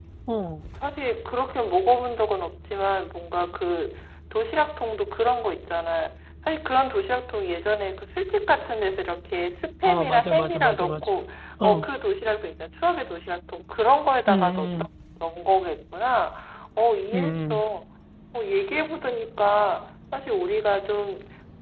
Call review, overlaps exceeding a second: present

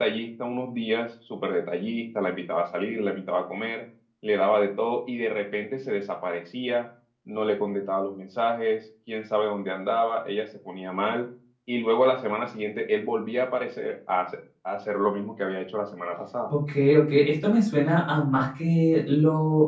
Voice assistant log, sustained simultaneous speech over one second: none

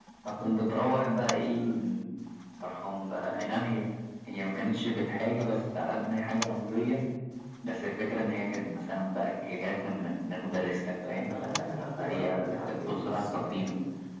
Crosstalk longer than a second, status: present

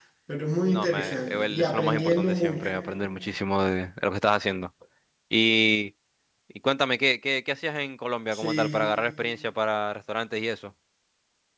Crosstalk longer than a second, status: present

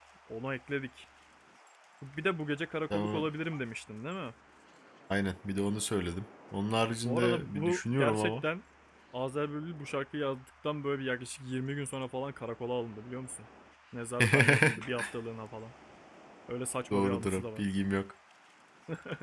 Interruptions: present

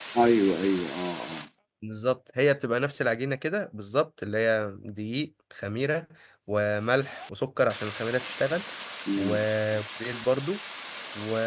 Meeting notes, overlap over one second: none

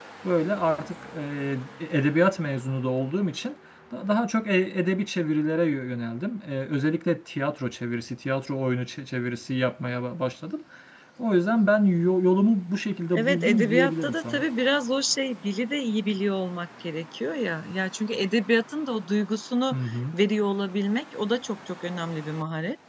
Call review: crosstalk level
present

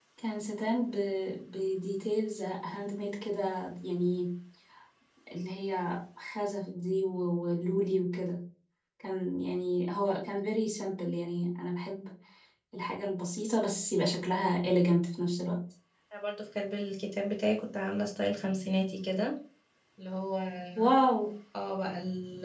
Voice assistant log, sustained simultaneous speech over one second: none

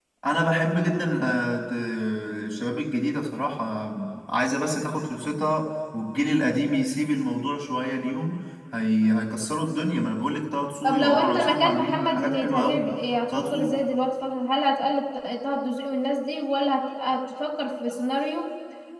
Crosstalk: present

